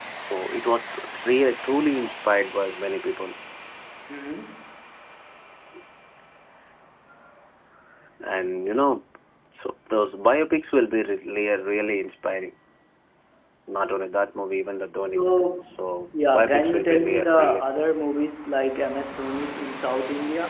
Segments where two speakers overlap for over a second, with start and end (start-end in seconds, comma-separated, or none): 16.3-17.6